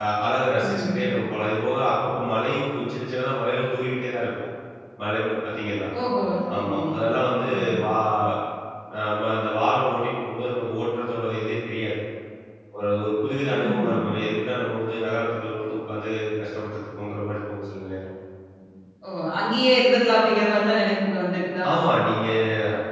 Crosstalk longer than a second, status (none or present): none